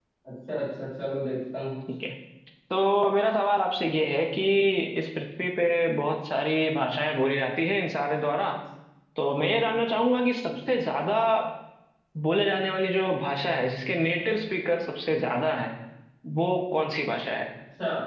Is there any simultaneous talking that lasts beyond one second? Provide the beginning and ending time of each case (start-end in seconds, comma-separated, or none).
none